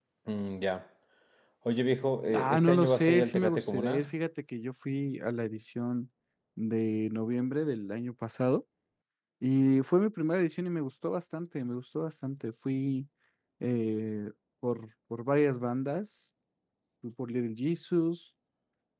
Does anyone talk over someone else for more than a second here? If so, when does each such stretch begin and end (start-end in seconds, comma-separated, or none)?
2.3-4.1